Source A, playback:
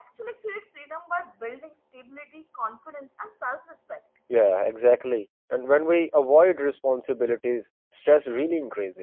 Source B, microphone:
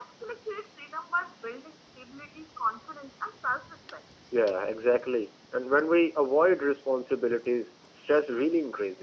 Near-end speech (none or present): none